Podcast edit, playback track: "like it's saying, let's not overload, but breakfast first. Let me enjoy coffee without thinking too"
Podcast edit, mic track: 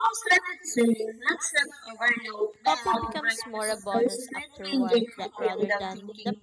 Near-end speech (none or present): present